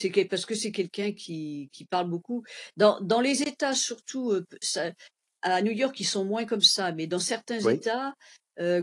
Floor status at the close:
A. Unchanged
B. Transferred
A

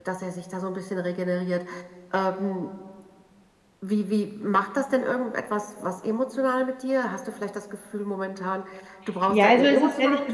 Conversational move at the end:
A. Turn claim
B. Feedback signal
A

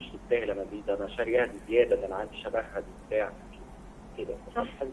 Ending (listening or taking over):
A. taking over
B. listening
A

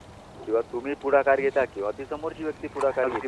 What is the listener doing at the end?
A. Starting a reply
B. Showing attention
A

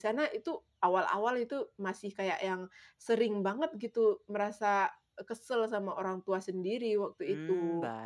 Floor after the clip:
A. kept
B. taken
B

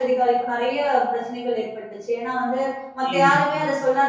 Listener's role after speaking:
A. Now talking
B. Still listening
B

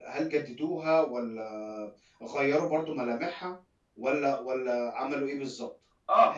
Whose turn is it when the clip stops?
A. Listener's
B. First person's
A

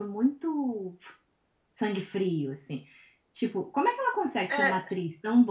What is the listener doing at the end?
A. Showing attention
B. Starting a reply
A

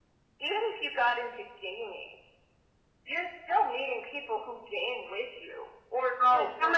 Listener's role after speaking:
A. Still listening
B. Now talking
B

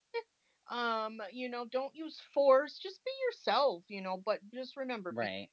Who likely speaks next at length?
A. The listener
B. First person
B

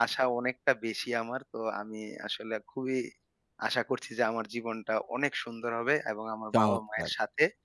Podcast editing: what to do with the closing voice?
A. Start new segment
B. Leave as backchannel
B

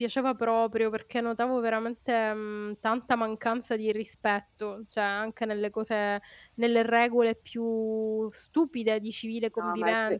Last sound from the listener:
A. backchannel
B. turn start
B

